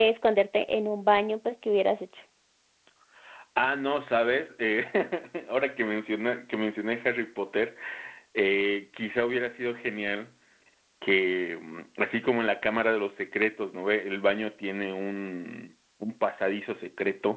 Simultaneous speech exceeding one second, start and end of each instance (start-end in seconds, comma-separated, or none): none